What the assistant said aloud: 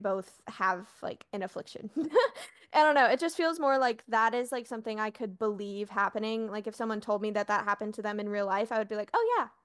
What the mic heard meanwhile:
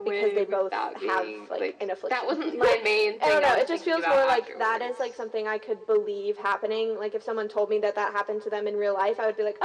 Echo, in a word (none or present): present